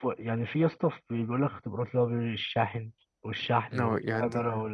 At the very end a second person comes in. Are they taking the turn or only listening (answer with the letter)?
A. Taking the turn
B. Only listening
A